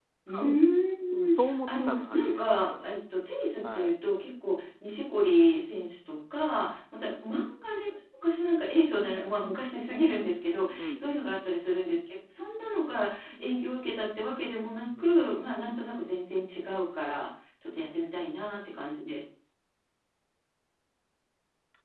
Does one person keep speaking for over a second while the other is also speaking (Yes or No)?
Yes